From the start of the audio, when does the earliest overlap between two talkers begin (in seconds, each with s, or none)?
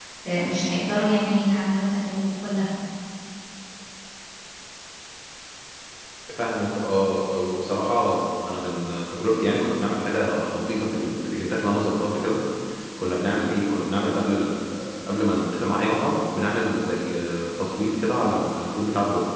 none